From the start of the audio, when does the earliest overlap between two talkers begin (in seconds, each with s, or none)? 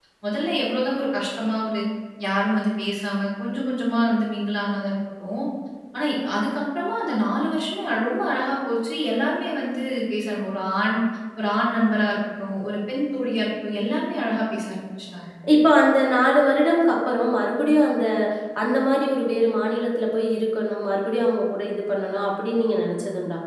none